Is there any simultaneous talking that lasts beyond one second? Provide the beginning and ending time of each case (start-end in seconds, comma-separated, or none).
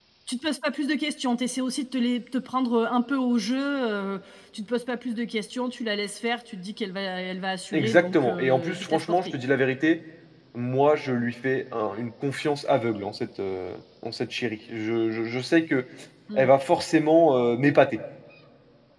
7.7-9.3